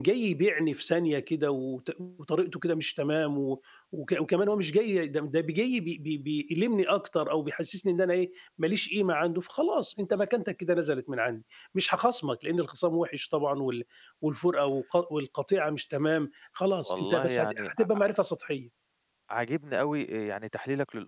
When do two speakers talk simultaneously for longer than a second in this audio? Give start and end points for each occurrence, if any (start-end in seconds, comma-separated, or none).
16.9-18.1